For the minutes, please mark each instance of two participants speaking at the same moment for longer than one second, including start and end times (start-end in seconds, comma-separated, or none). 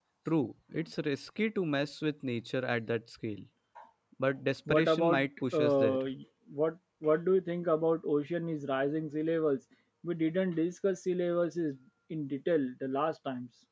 4.7-6.0